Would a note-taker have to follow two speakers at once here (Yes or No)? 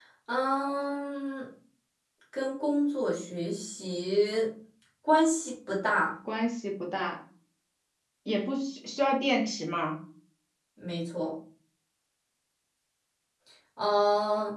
No